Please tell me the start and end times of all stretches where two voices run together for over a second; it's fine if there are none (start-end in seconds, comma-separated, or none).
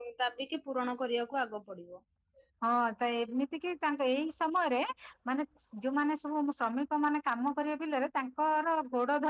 none